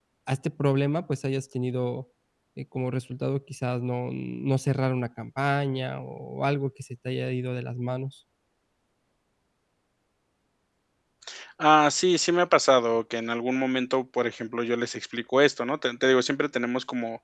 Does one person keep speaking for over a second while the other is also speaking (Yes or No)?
No